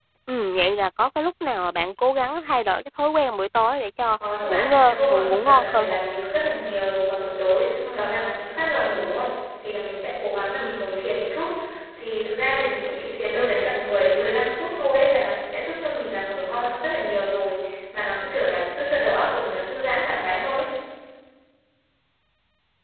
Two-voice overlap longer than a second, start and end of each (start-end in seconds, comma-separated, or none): 4.5-6.0